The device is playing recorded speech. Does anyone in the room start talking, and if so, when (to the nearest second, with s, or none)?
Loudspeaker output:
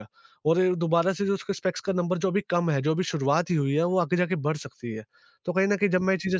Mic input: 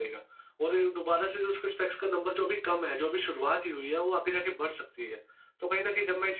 none